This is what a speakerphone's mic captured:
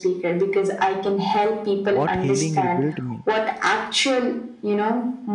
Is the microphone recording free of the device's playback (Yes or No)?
No